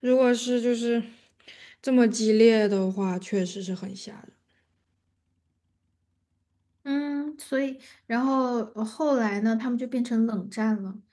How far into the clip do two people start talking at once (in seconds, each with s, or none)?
none